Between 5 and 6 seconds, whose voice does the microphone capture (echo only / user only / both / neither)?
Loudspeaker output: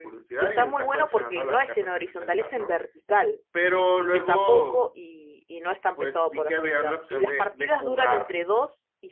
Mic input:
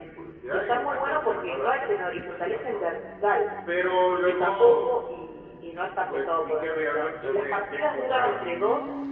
echo only